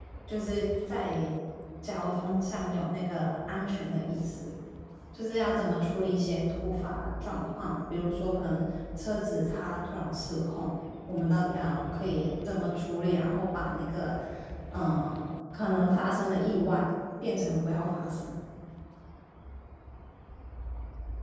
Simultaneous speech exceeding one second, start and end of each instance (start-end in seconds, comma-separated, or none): none